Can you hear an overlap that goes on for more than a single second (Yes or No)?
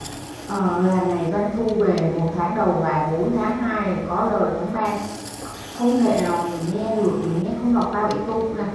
No